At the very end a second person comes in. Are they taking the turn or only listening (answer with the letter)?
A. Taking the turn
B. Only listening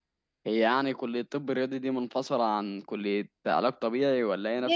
A